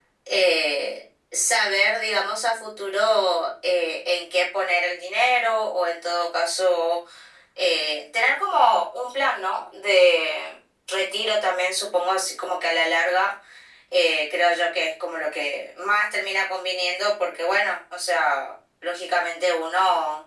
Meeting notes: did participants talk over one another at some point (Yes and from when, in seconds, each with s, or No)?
No